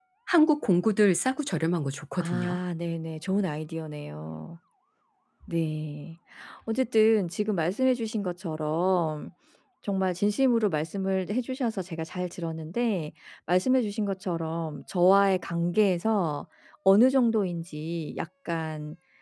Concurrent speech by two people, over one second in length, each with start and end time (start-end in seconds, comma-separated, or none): none